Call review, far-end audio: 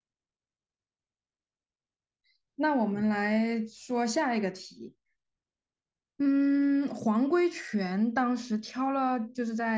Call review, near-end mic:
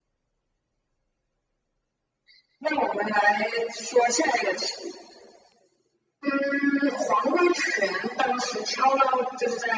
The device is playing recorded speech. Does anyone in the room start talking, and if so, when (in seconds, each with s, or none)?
none